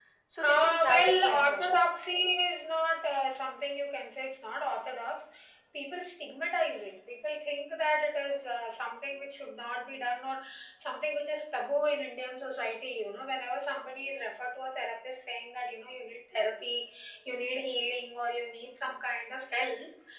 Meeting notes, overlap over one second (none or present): present